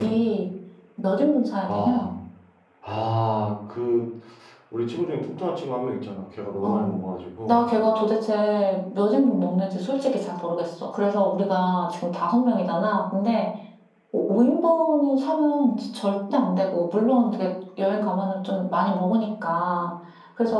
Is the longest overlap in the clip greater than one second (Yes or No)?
No